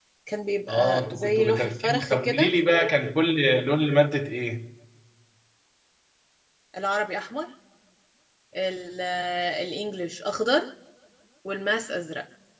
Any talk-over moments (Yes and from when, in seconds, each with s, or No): Yes, from 0.7 s